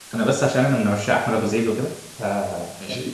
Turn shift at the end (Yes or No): No